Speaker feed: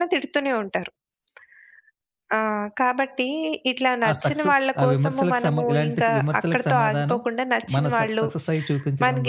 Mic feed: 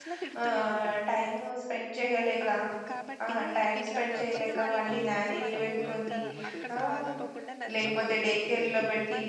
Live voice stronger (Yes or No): Yes